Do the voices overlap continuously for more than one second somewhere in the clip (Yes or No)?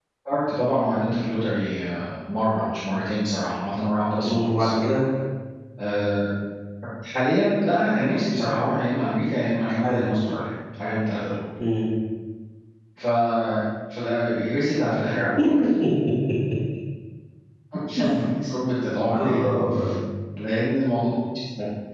No